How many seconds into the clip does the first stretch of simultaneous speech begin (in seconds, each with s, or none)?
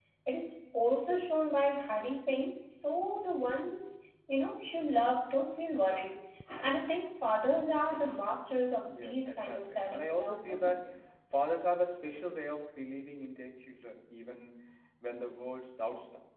8.9 s